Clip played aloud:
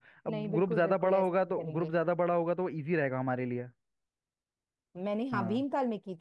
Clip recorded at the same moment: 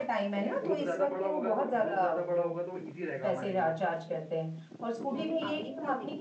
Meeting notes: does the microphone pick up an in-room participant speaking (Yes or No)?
Yes